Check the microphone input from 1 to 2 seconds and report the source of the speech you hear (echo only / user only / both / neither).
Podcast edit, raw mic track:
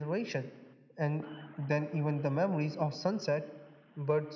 echo only